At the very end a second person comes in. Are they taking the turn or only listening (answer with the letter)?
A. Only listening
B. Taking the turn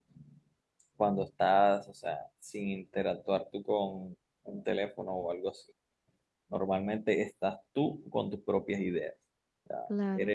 A